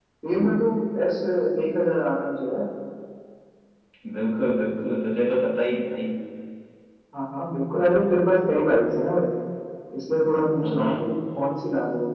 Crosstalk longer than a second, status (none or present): none